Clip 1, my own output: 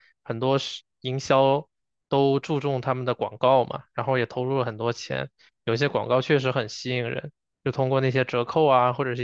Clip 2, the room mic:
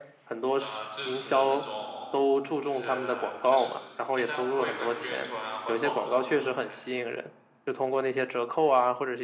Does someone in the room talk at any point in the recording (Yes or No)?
Yes